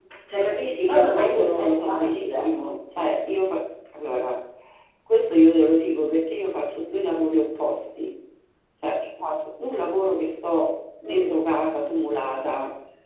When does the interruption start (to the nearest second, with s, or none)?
1 s